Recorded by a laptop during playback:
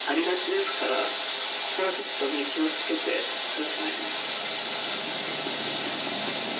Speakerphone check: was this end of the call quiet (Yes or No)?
Yes